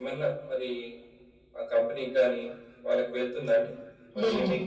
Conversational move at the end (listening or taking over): listening